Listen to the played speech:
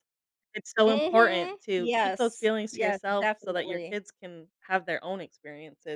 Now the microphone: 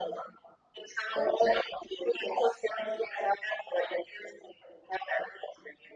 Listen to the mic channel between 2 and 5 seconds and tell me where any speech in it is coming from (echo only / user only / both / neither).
echo only